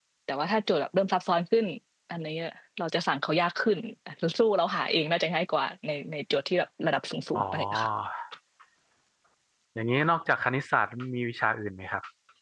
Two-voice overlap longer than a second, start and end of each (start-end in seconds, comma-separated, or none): none